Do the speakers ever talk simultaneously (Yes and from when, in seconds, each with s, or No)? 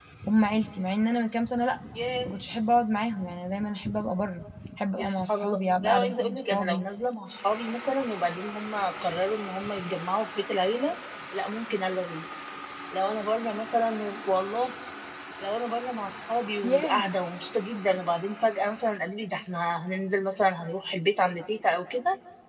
Yes, from 5.0 s